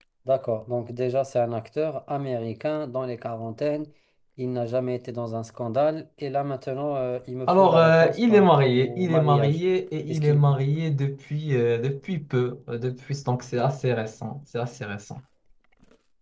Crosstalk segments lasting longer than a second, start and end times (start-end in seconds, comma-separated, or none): 7.5-9.6